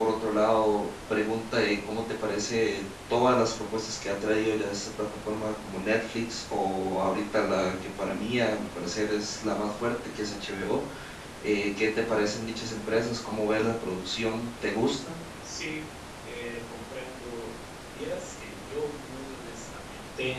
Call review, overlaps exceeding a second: none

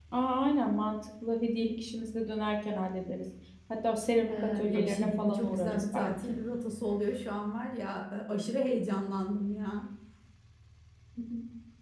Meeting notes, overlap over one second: present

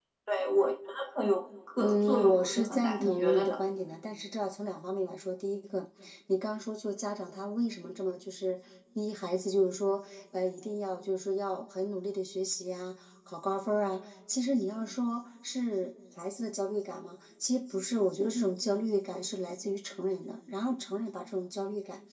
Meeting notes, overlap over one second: present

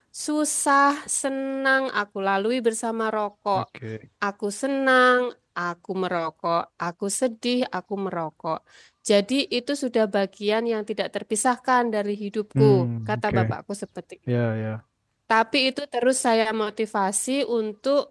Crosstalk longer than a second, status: none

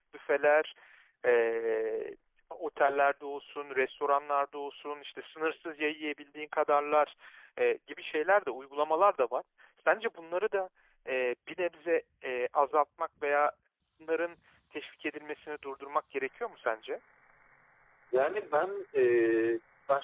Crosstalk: none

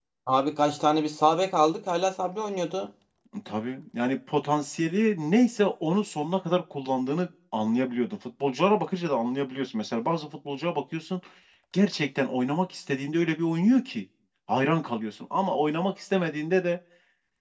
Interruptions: none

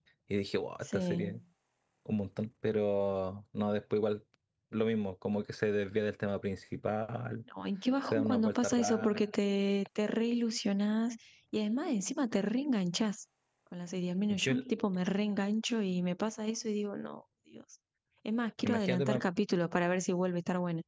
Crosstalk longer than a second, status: present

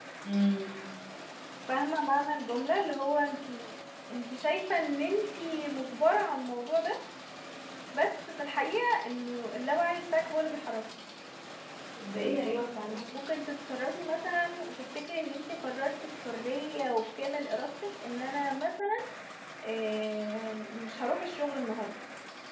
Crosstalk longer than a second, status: none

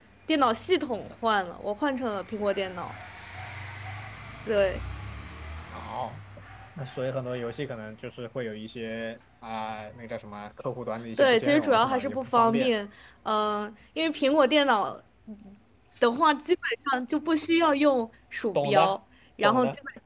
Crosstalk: present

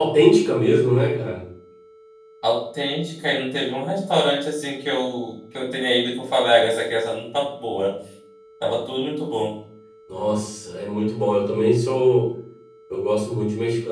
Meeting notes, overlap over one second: none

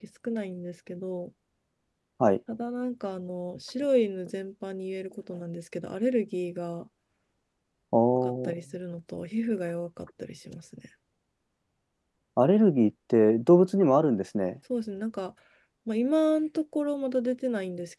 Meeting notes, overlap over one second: none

